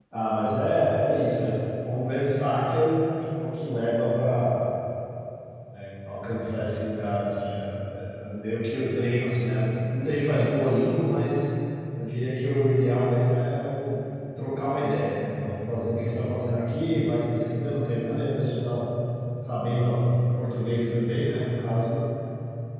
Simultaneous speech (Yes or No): No